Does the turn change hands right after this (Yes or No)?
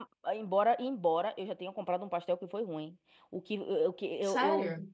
No